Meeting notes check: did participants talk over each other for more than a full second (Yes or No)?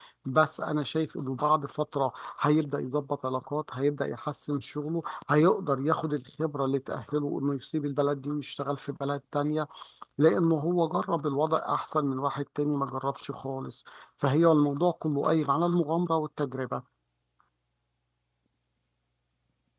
No